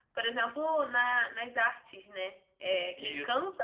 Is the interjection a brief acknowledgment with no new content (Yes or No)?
Yes